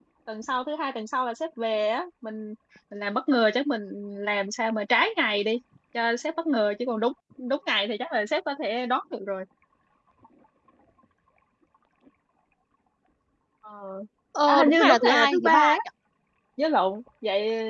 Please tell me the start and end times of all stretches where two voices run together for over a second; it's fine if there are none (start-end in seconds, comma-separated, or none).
14.5-15.8